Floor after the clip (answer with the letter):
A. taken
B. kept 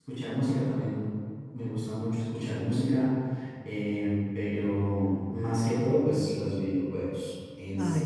A